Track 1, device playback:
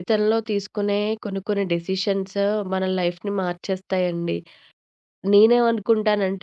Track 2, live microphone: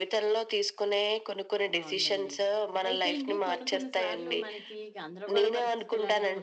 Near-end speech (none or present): present